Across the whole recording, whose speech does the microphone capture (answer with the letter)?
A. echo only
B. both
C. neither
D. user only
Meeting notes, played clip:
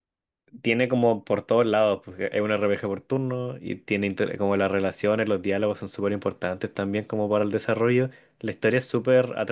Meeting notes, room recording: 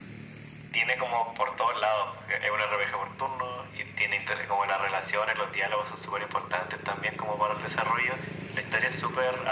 A